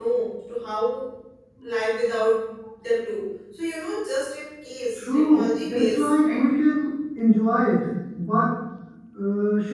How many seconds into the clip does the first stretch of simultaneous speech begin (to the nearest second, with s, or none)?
5 s